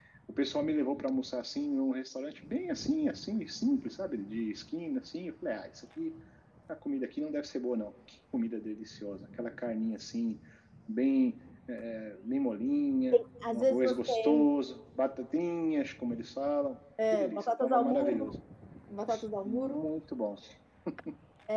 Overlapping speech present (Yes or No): Yes